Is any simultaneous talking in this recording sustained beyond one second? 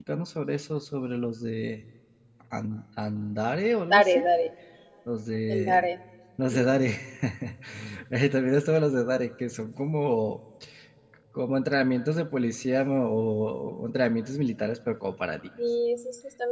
No

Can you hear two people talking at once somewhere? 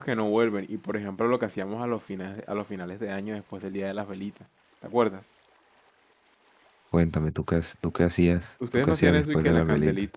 Yes, from 8.6 s

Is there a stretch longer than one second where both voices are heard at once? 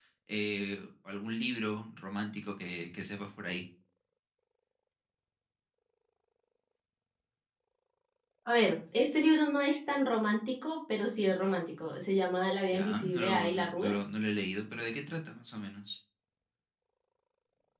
Yes, from 12.7 s

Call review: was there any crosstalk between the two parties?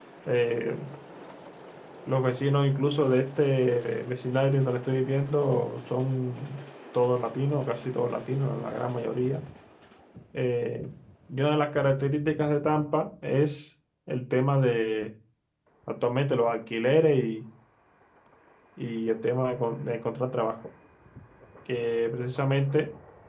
No

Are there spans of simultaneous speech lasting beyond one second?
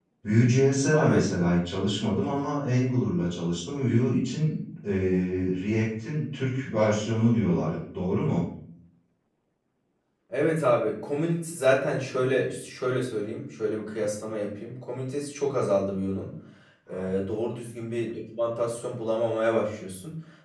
No

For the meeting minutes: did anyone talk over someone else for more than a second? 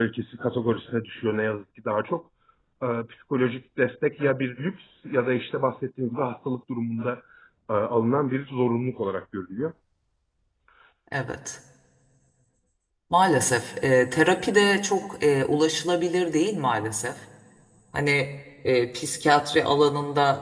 No

